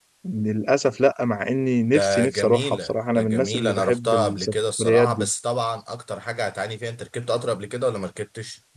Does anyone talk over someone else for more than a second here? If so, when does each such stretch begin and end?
1.9-5.3

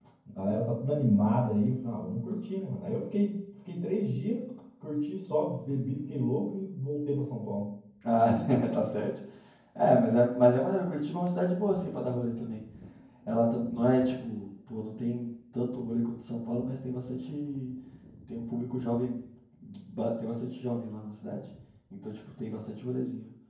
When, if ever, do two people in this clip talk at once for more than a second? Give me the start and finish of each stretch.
none

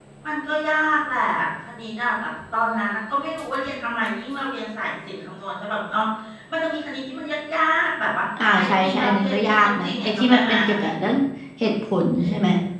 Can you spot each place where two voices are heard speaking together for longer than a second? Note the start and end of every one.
8.6-10.6

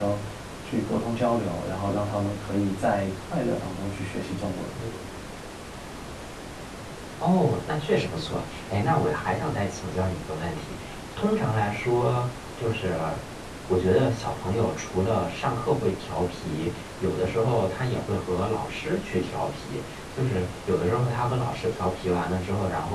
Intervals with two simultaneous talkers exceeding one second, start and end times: none

